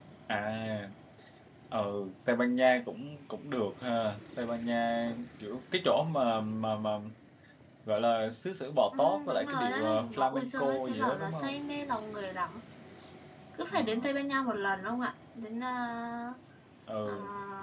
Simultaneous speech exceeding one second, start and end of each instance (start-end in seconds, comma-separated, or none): 8.9-11.6